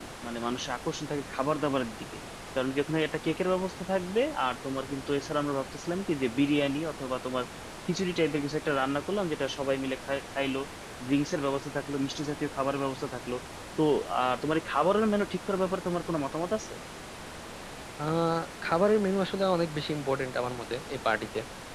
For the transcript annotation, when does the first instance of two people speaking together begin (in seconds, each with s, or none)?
none